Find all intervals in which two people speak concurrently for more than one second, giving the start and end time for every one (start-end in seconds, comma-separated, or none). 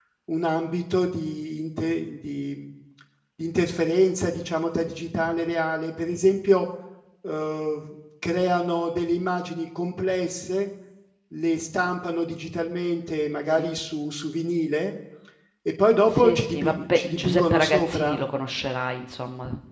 16.1-18.2